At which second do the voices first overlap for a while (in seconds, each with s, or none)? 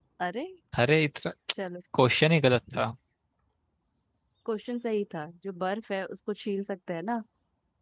none